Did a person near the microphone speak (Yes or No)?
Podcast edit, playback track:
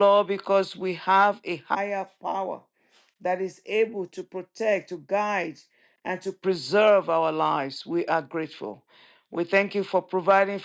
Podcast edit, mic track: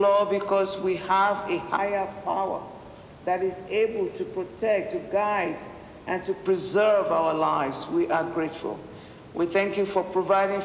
No